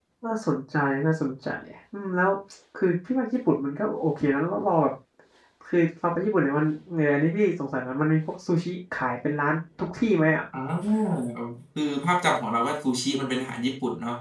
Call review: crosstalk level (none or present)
none